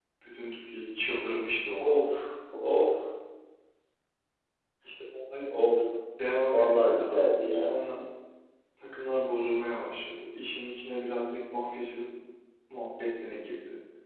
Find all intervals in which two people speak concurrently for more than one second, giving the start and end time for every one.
6.5-7.8

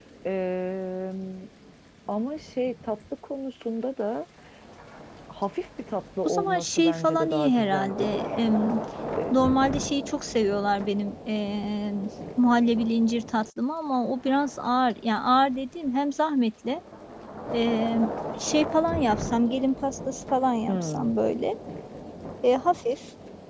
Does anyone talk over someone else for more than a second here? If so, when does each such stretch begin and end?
6.2-8.2

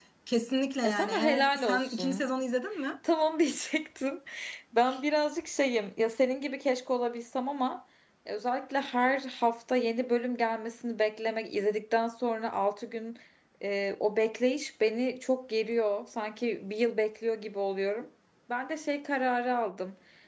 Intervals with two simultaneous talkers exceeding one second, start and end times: 0.8-2.2

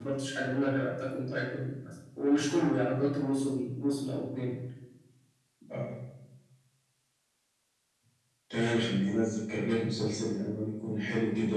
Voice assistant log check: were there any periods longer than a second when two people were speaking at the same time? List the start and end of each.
none

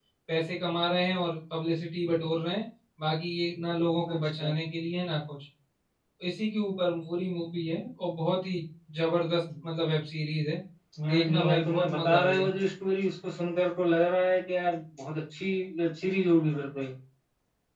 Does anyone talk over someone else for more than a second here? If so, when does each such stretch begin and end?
11.1-12.5

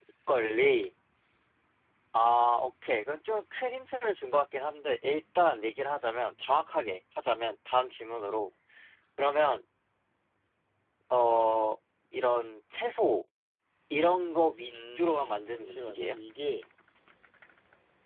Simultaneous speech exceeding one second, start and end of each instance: 14.7-16.1

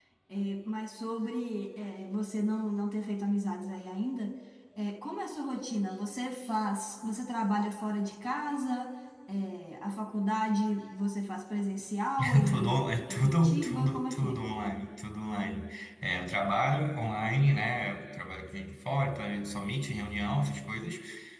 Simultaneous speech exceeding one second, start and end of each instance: 12.2-14.4

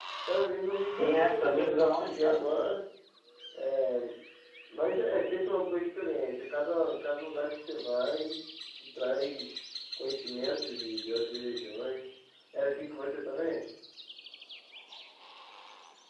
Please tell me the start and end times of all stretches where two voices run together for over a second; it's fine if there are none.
0.8-2.5

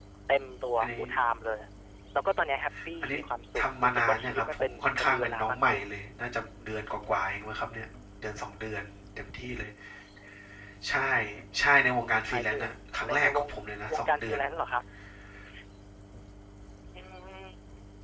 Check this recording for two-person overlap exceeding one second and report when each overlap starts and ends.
3.6-5.8

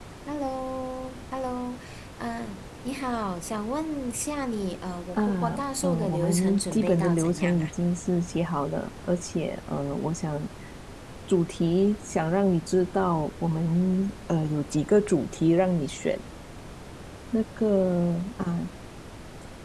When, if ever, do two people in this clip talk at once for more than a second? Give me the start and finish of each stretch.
5.8-7.7

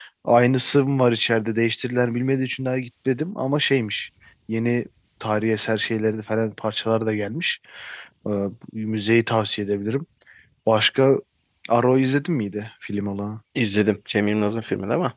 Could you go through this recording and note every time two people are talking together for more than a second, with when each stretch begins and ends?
none

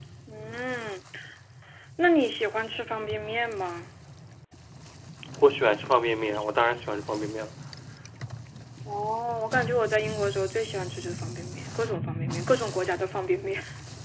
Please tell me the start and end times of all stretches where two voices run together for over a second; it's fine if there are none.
none

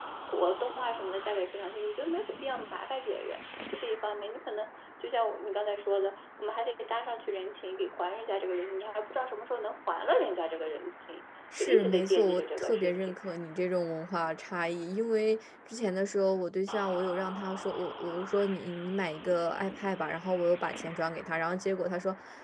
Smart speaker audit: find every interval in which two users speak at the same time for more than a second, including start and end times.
11.6-13.2

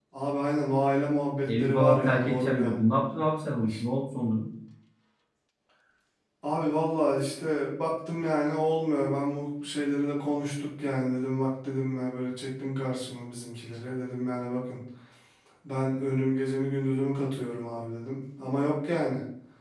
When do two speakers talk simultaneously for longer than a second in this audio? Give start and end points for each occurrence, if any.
1.5-2.8

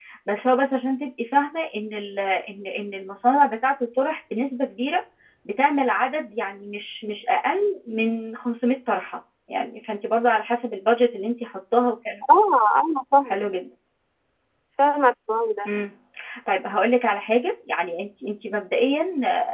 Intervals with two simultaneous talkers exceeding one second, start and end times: none

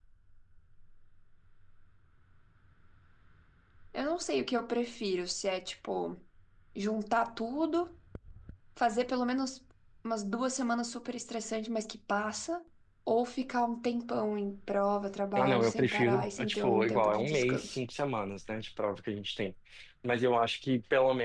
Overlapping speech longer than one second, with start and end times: 15.4-17.8

